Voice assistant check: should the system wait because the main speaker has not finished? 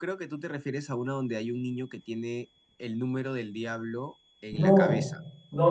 No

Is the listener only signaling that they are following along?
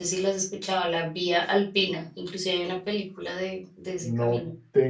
No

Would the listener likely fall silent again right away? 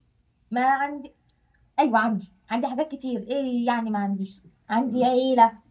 Yes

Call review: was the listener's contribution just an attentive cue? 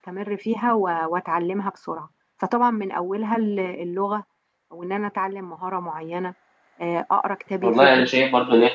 No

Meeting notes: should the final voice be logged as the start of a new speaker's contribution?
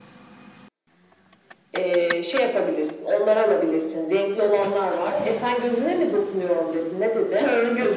Yes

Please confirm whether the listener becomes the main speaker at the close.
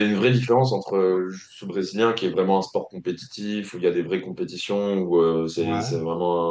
No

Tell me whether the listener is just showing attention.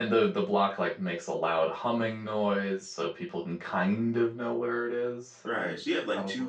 No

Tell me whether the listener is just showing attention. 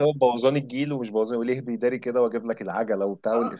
No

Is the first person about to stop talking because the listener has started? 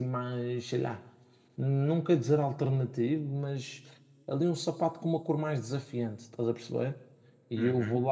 No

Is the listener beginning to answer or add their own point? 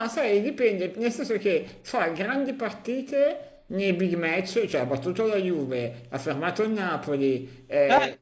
No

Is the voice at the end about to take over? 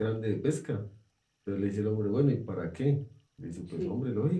No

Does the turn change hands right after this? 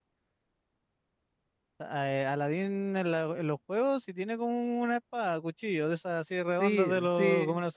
Yes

